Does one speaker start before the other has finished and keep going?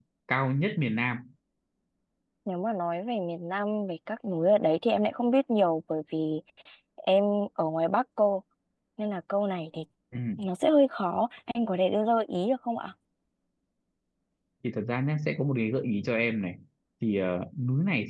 No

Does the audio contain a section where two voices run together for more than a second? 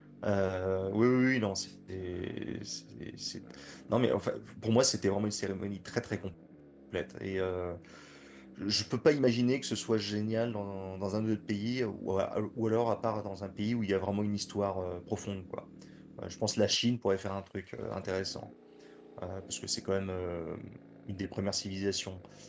No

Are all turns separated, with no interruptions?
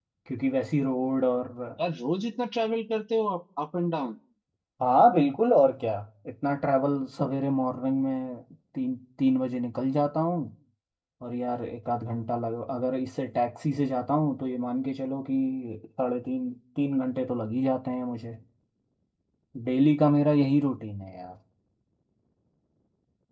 Yes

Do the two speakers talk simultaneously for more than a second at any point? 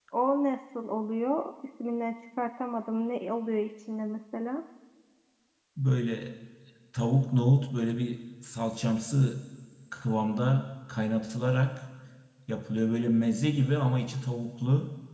No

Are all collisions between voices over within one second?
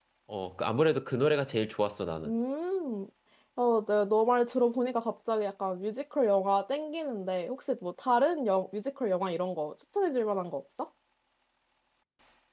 Yes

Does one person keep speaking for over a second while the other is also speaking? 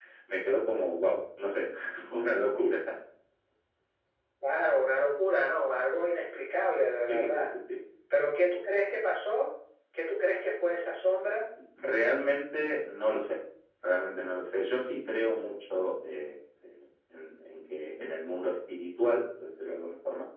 No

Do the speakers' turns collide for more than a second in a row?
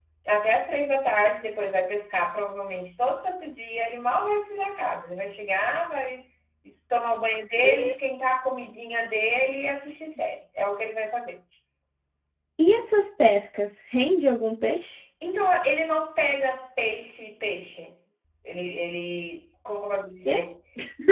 No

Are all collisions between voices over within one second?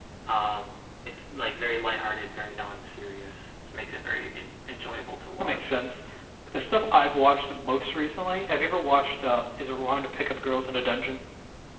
Yes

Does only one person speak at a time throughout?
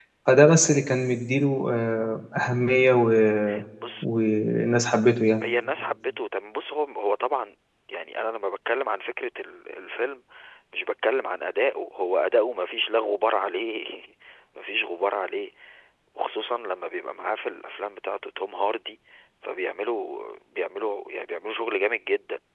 Yes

